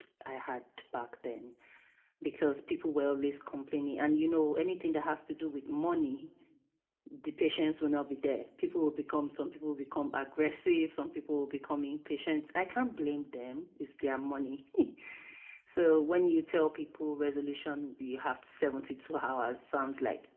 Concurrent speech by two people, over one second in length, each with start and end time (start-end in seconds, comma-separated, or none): none